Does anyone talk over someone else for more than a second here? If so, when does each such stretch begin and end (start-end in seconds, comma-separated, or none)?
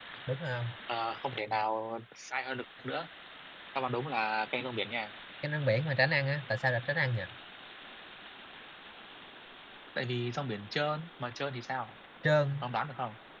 none